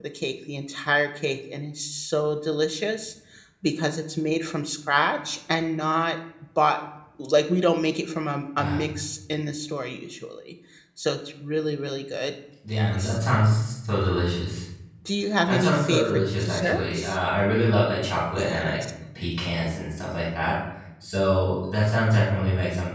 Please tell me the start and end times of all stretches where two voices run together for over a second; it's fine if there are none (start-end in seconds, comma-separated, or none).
15.5-17.2